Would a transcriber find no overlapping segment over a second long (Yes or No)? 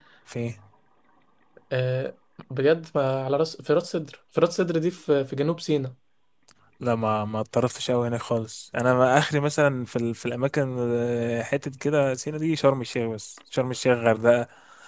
Yes